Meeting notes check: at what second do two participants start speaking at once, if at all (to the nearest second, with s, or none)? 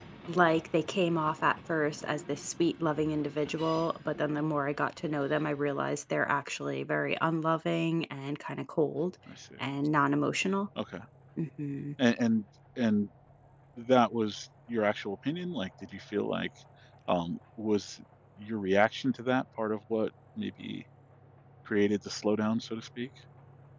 none